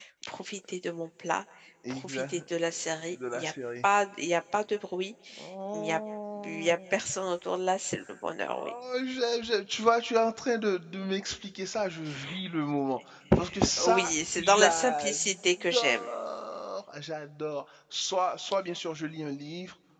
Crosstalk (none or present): present